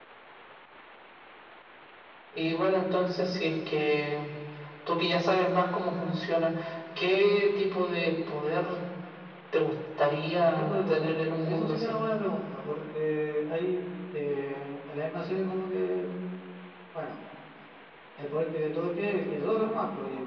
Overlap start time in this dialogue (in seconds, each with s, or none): 10.5 s